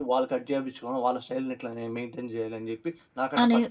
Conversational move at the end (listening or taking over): taking over